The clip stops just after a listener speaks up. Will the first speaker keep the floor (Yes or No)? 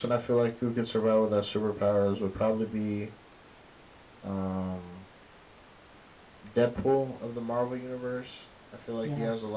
Yes